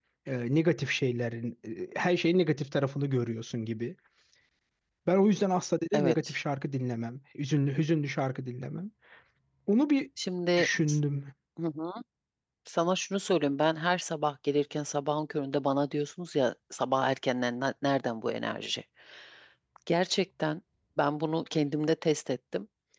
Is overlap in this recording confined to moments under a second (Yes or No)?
Yes